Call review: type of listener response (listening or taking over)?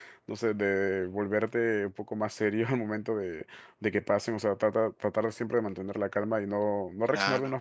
listening